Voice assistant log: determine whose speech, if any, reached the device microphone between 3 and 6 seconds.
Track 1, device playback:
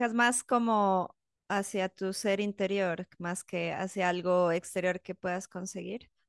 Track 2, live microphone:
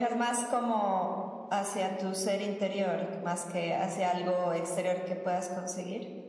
echo only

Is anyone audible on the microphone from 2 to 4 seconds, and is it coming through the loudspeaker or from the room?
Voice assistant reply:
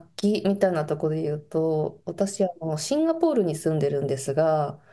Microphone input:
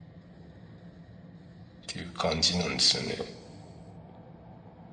user only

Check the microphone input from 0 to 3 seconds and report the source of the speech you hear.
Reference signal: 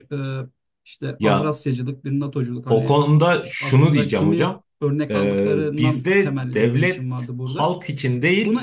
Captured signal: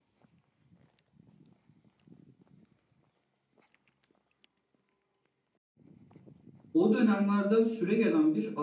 neither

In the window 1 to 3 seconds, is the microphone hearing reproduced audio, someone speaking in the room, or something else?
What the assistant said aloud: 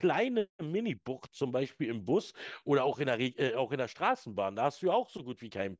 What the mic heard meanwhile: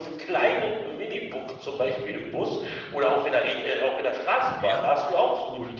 echo only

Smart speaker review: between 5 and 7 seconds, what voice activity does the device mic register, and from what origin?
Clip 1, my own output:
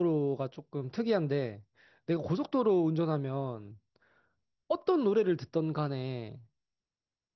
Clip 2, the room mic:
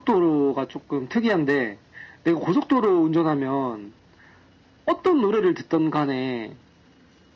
echo only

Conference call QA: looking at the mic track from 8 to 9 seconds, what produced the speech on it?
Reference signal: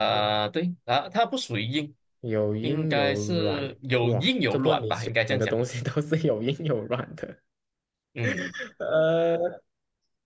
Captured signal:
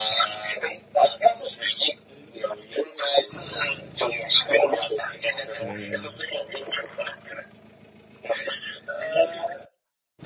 echo only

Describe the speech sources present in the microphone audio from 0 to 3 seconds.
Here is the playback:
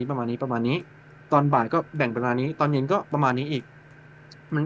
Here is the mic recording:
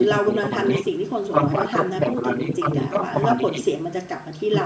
both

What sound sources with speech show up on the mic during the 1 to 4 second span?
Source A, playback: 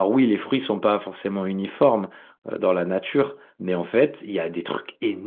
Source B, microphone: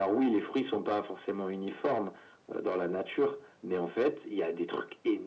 echo only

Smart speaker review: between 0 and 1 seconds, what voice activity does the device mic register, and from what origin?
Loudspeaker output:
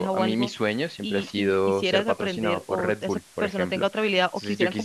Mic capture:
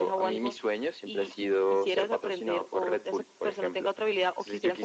echo only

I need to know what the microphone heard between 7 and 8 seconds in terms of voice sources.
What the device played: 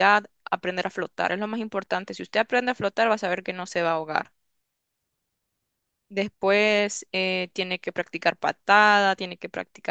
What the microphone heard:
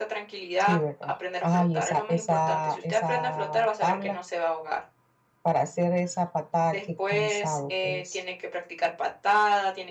both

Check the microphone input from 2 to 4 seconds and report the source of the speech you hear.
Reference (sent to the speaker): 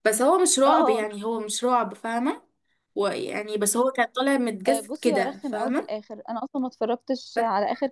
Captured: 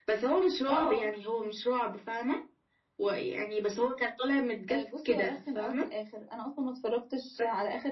echo only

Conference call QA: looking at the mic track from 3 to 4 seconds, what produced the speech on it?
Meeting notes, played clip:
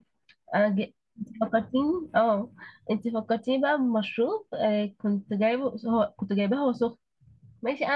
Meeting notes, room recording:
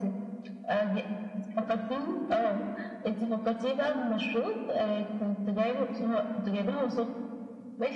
echo only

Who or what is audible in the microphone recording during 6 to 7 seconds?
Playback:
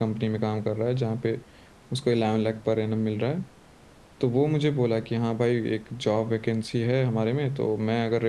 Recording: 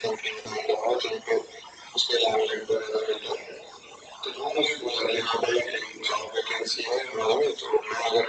echo only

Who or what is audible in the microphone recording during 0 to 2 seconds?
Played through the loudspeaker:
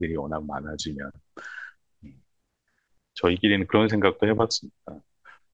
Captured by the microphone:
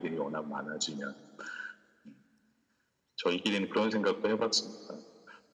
echo only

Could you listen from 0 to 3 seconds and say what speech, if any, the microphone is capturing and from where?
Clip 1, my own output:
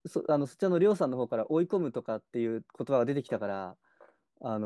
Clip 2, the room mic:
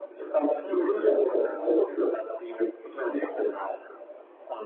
both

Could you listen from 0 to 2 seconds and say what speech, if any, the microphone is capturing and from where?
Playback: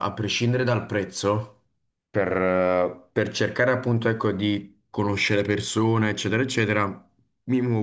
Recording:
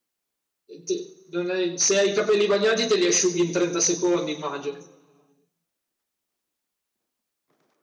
user only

